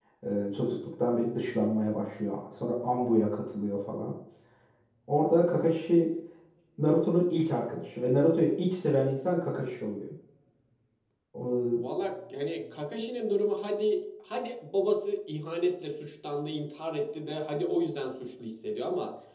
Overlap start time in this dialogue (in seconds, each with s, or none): none